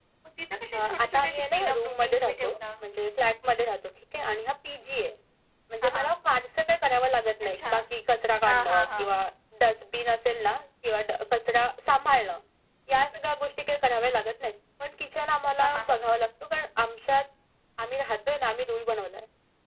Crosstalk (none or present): present